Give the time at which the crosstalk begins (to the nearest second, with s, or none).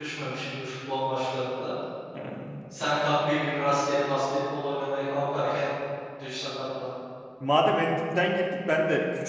none